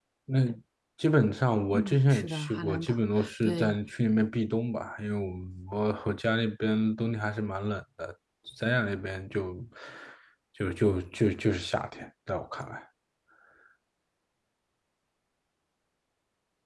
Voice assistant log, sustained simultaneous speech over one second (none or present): present